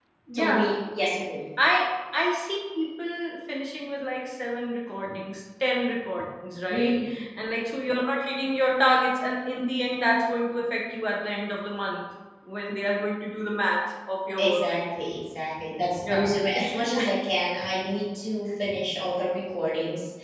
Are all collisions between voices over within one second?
Yes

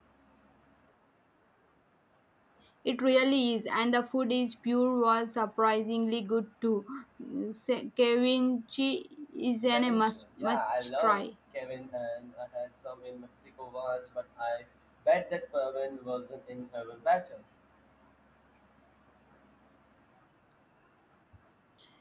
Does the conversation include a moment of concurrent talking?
Yes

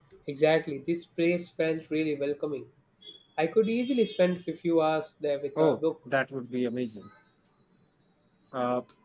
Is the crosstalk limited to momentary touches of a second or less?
Yes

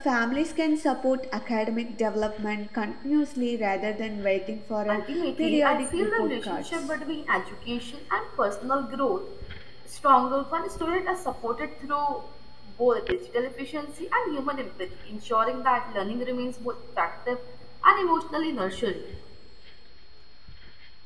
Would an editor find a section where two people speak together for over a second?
Yes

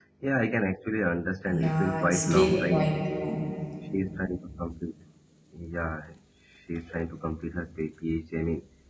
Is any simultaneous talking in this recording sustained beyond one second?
Yes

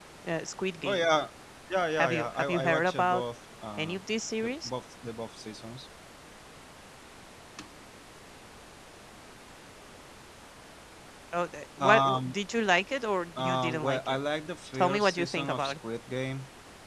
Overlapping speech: Yes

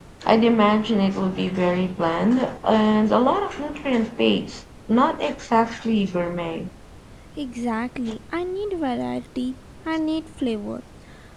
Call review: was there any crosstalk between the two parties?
No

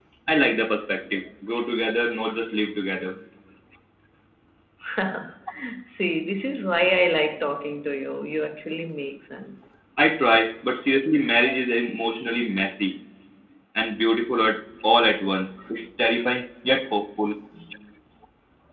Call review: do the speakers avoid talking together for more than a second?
Yes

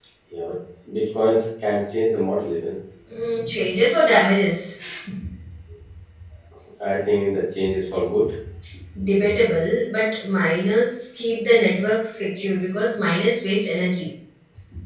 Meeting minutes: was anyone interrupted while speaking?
No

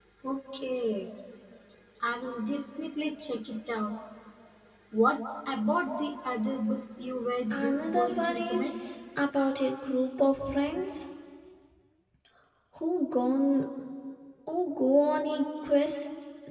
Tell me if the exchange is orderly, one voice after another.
No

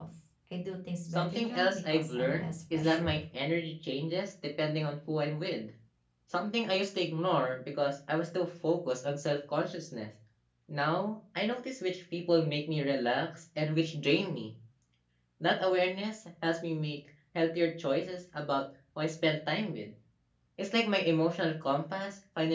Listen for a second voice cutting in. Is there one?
Yes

